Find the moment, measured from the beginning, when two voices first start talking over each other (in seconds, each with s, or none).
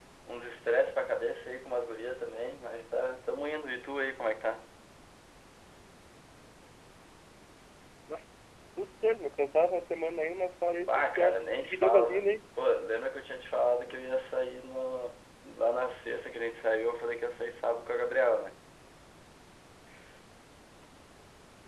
10.8 s